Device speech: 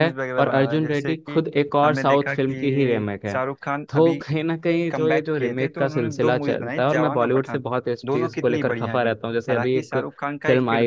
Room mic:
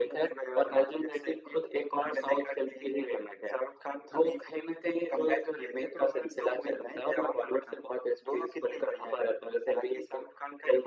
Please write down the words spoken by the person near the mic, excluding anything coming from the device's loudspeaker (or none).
none